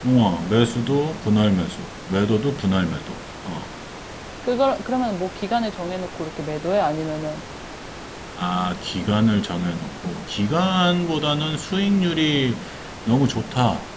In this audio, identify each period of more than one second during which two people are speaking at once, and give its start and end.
none

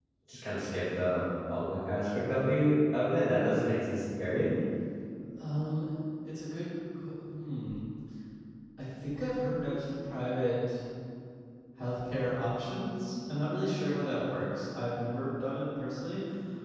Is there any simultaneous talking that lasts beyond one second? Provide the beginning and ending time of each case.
none

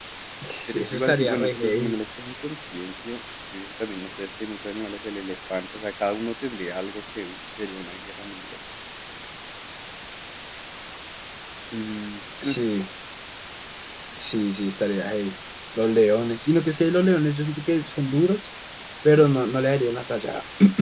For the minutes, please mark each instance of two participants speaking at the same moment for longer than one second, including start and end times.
0.7-2.0

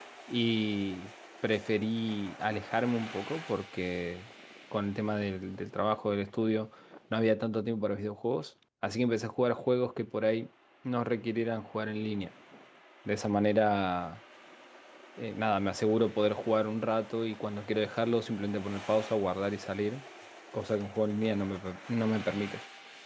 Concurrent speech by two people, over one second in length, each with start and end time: none

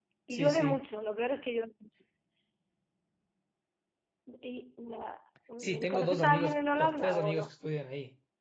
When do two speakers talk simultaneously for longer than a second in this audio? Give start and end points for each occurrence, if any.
5.6-7.5

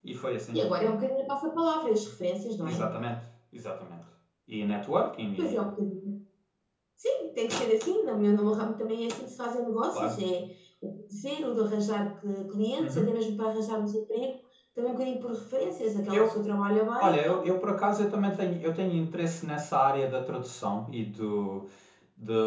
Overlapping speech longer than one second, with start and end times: none

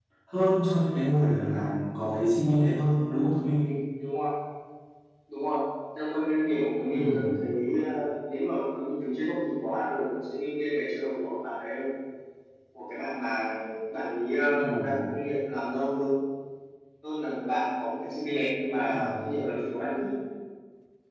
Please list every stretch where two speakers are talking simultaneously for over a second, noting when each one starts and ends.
none

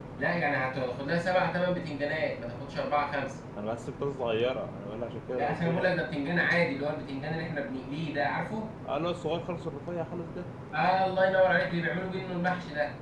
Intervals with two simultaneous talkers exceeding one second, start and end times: none

